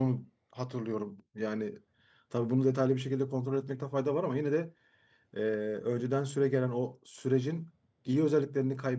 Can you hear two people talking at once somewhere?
No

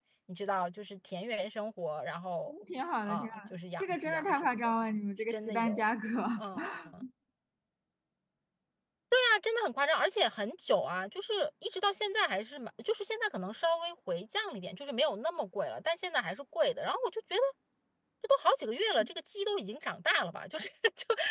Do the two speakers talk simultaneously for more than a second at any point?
Yes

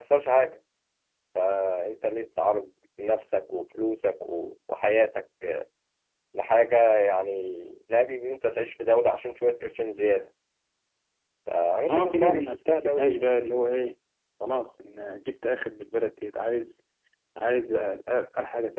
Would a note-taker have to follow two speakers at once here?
Yes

